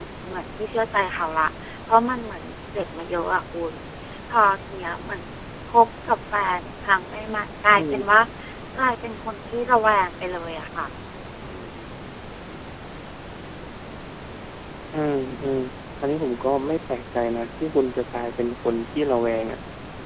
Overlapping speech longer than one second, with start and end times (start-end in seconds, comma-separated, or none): none